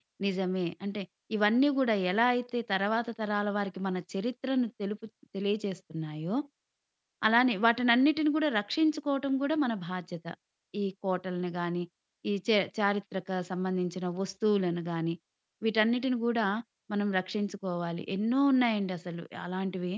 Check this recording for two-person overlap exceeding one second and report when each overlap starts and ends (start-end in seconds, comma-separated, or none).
none